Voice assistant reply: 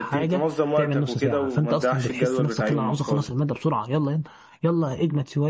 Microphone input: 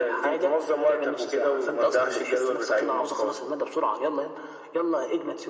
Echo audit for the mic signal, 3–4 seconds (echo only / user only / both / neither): echo only